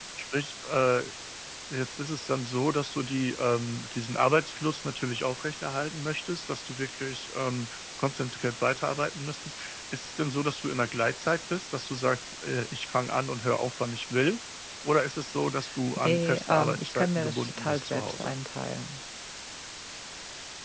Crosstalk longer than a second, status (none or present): present